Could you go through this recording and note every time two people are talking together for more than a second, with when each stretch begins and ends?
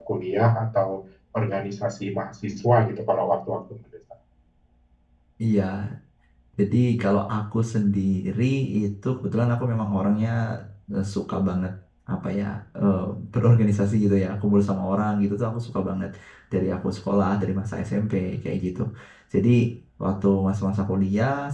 none

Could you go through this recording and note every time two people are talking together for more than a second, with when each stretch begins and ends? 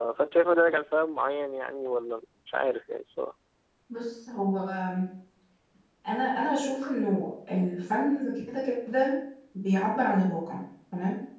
none

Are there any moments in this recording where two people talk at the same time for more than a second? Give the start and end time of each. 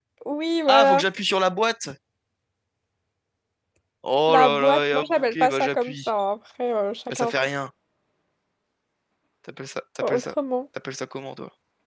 4.3-5.9

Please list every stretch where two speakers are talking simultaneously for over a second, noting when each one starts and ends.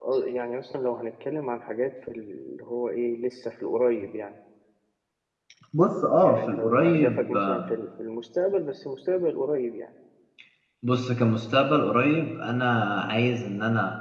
6.2-7.7

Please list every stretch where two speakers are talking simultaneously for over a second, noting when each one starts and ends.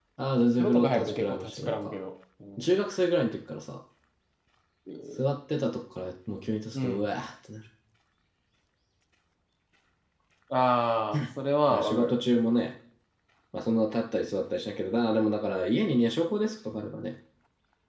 0.6-1.9

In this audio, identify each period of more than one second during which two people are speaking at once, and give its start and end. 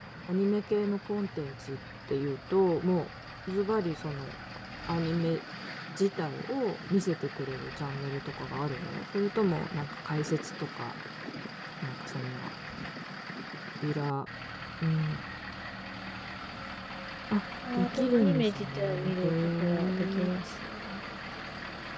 17.7-20.3

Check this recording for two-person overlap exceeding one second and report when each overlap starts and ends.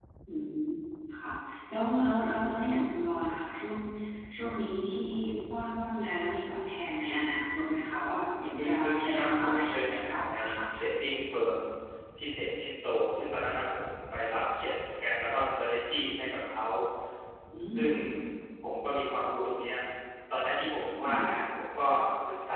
8.6-10.6

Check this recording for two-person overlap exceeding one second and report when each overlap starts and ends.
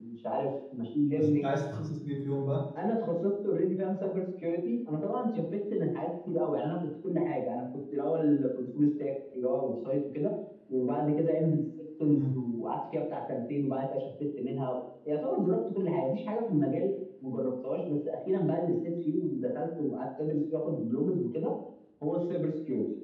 none

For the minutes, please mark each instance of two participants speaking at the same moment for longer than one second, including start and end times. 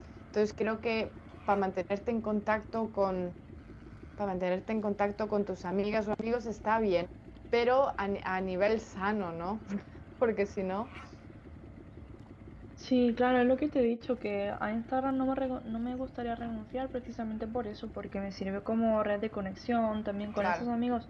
none

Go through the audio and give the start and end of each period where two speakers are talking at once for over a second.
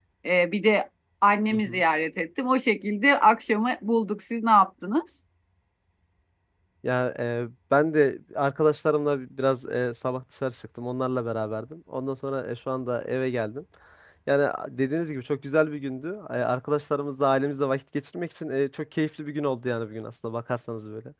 none

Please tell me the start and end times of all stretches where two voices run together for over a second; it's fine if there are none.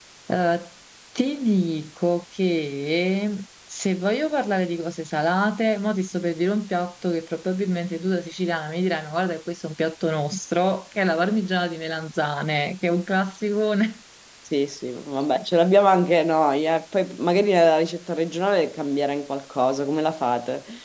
none

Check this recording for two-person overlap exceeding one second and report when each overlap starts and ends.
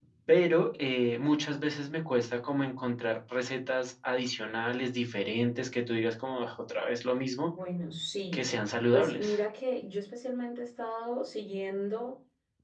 none

